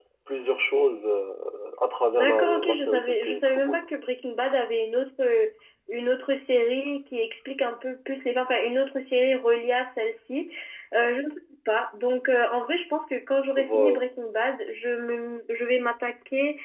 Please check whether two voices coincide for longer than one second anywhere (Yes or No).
Yes